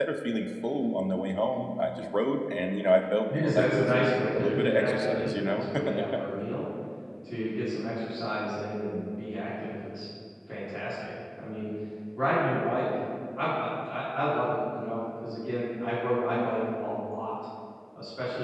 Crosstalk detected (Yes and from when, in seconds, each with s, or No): Yes, from 3.3 s